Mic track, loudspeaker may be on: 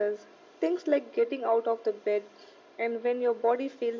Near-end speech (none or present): none